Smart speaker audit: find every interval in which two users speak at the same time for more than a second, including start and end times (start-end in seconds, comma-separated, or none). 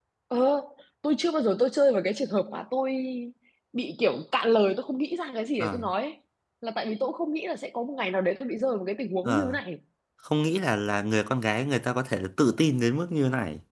none